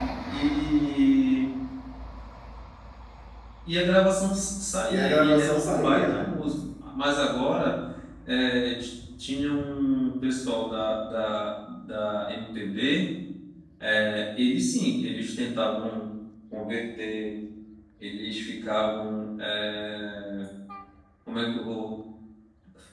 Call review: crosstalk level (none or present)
present